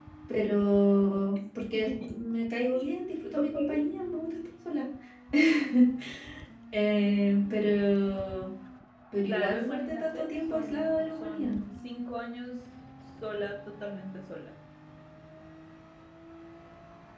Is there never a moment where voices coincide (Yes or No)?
No